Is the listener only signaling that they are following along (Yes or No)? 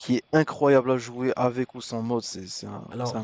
No